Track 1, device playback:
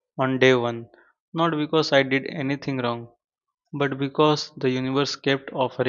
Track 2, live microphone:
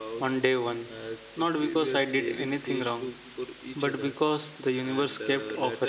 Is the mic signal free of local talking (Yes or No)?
No